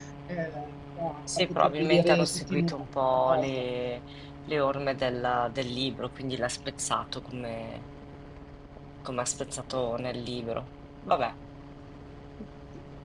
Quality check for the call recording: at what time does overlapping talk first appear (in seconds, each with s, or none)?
1.4 s